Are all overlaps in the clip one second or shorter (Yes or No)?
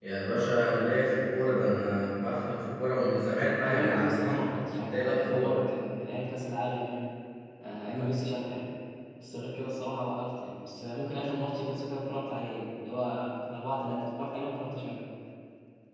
No